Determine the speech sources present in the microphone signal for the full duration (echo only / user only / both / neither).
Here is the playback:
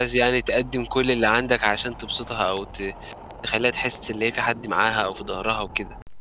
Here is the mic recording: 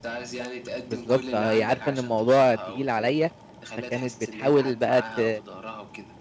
both